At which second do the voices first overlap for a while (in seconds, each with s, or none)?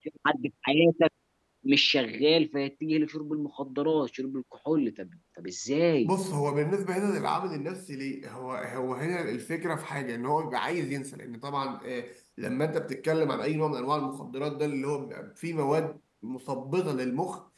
none